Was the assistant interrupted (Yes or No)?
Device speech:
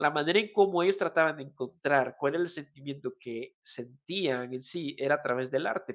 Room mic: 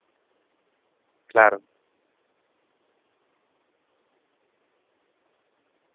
Yes